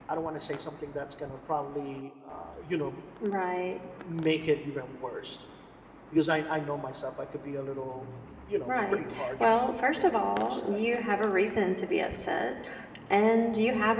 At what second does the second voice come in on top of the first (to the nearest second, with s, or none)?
9 s